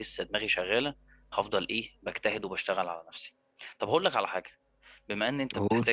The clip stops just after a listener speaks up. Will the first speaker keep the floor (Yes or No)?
Yes